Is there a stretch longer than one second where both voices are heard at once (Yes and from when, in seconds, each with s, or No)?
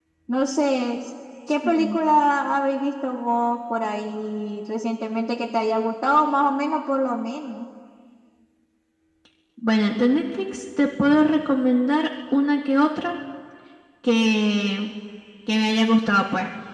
No